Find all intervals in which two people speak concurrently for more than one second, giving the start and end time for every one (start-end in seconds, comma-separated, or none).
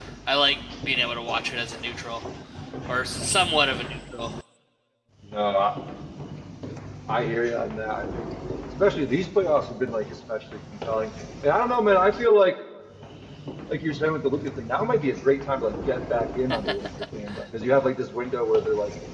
none